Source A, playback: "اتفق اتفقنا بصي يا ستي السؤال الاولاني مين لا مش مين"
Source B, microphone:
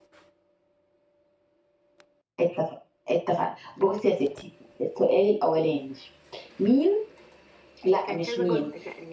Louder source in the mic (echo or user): echo